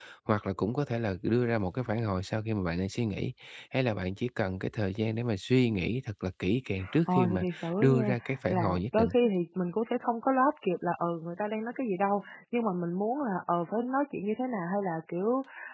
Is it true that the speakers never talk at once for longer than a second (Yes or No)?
No